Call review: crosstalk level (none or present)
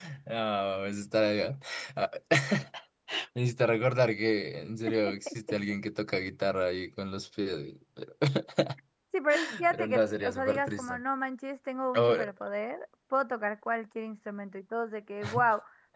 present